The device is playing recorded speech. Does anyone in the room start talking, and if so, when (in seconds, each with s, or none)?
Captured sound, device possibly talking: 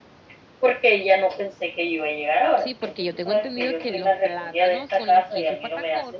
2.6 s